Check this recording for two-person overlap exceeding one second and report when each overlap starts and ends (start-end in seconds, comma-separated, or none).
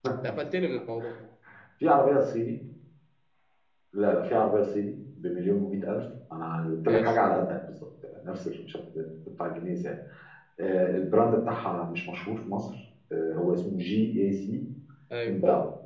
none